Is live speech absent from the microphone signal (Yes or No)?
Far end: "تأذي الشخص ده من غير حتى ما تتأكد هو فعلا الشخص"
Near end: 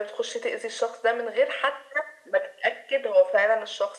Yes